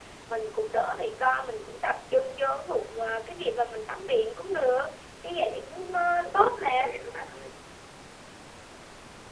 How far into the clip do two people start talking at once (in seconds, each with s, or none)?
5.5 s